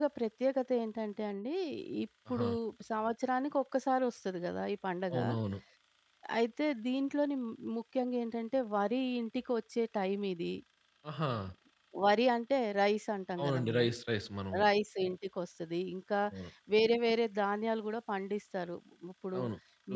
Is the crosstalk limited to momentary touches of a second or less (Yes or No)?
Yes